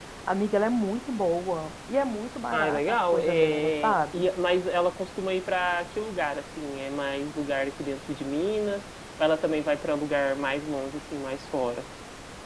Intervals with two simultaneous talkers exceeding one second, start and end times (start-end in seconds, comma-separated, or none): 2.5-4.3